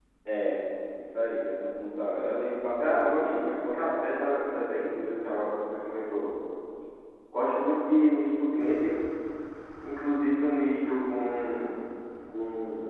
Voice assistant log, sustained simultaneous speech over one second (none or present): present